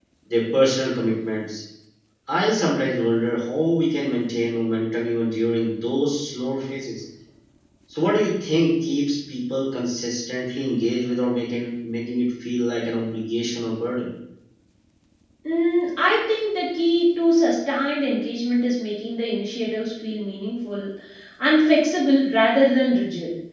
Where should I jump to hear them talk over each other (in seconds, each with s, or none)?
none